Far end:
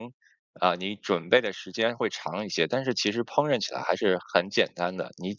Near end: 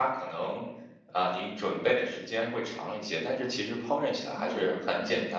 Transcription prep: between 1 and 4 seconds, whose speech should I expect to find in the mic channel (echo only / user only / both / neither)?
echo only